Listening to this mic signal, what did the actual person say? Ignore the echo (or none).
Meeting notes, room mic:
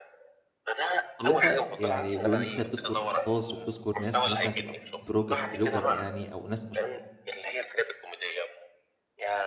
طب، أنت يعني بما إن أنت بتذكُر أشخاص وبتذكُر ناس مثلًا تبقى بورج بلوجر يعني أو ناس مشهو